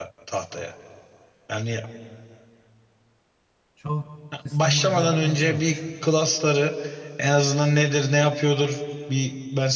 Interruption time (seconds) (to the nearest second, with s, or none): 5 s